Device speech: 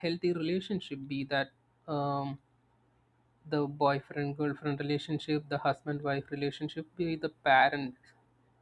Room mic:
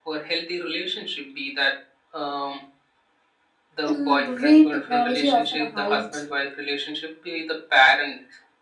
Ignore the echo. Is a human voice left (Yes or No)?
Yes